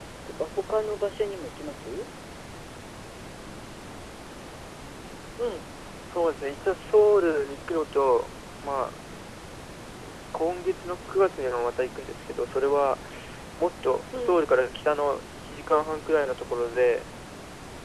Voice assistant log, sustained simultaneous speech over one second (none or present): none